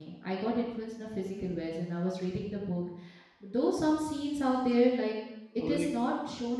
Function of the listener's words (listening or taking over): listening